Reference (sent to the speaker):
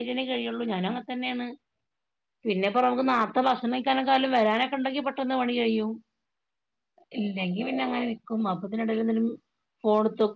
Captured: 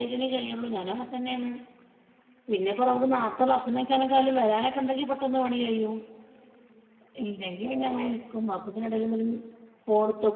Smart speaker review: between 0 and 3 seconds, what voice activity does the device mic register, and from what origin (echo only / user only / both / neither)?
echo only